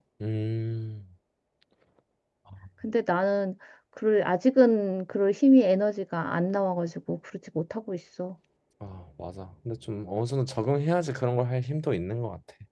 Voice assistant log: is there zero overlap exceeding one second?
Yes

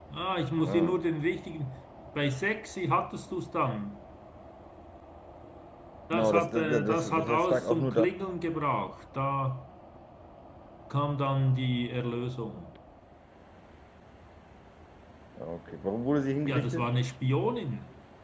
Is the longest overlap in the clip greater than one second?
Yes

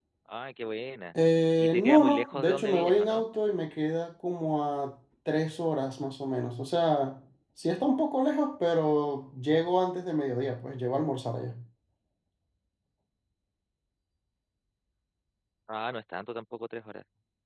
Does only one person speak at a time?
No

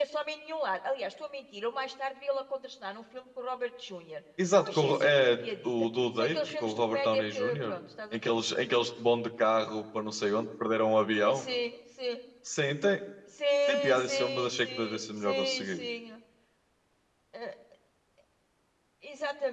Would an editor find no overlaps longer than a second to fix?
No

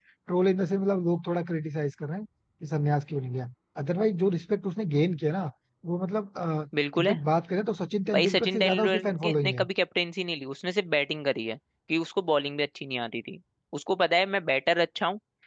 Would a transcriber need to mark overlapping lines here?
Yes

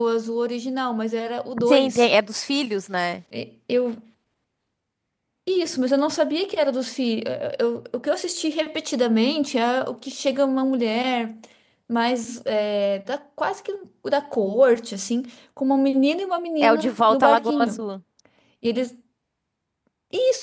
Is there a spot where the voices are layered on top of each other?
Yes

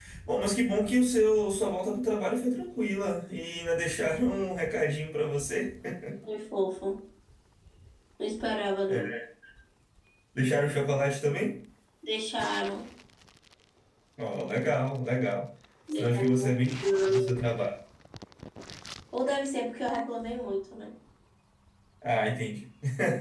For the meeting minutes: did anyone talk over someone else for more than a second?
Yes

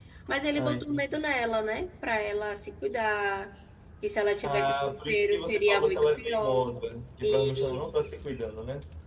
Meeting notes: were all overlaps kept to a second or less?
No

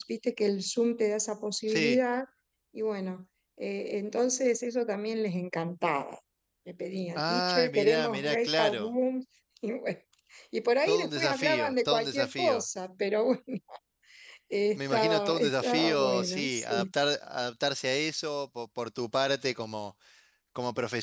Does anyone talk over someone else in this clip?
Yes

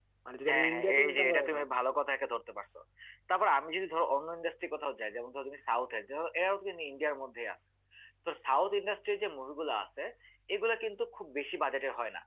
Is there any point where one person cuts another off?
Yes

